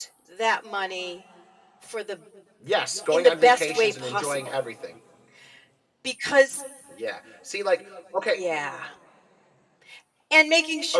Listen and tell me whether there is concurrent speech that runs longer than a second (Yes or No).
Yes